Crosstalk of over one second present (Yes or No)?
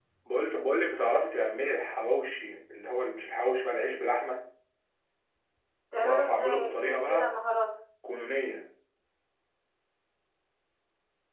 Yes